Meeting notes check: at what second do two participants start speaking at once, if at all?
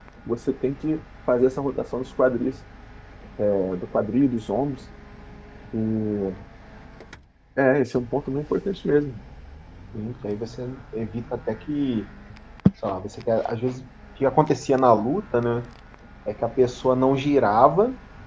none

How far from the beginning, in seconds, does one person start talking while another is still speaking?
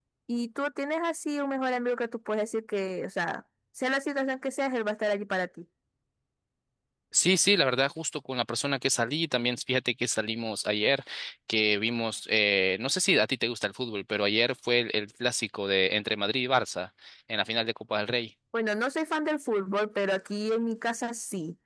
none

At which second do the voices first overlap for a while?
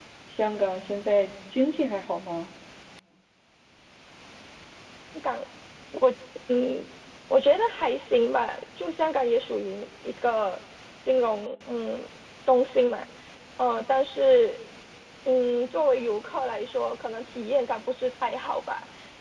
none

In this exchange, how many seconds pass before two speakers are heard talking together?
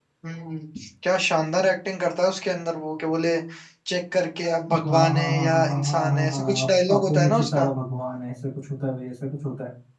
4.7 s

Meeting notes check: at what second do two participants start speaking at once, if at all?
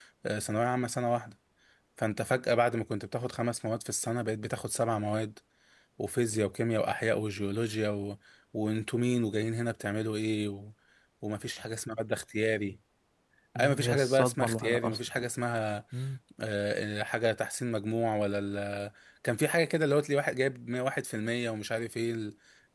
13.6 s

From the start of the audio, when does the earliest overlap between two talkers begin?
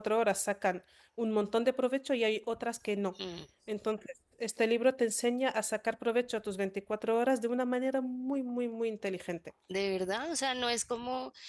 none

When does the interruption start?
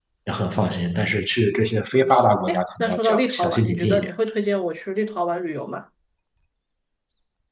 1.9 s

